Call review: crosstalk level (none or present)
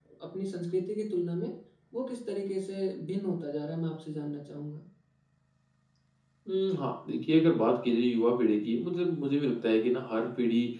none